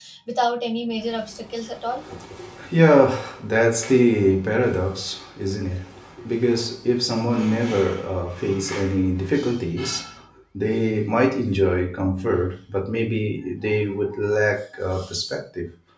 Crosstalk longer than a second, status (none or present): none